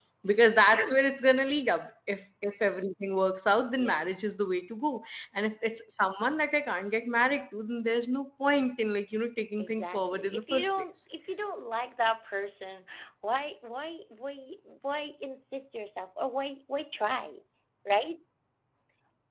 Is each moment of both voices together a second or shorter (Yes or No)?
No